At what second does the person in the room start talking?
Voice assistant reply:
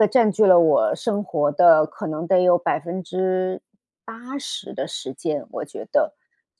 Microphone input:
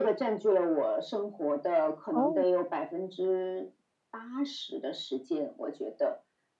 2 s

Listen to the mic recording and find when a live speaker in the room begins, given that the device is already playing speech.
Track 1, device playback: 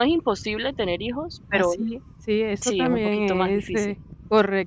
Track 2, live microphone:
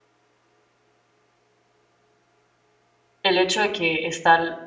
3 s

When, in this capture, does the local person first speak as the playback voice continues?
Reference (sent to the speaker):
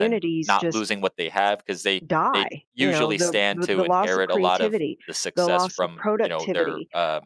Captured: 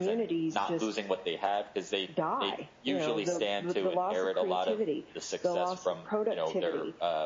none

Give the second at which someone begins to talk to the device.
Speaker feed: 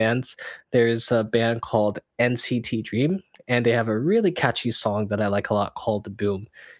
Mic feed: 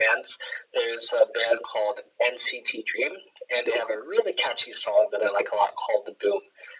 none

